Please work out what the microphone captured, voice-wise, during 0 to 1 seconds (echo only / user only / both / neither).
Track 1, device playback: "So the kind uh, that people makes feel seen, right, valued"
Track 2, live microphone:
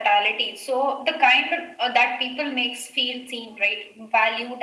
echo only